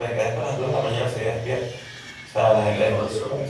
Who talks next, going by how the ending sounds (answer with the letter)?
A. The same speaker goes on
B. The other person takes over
A